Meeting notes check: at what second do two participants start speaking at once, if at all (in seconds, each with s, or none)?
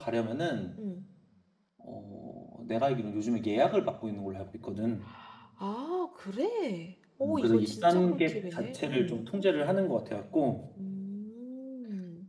7.2 s